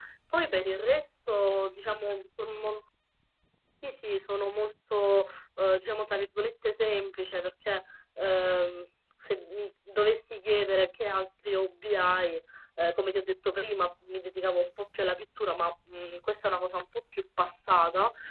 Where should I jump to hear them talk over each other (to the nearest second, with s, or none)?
none